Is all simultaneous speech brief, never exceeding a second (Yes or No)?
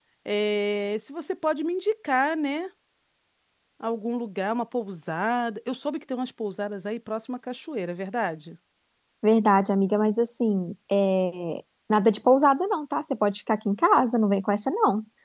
Yes